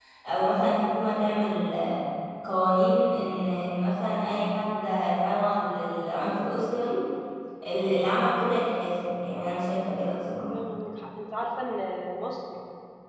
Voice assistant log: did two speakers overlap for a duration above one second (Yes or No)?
No